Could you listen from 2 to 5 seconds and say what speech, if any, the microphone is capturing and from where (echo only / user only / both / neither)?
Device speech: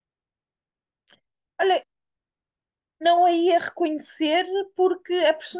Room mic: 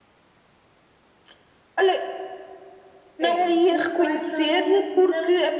both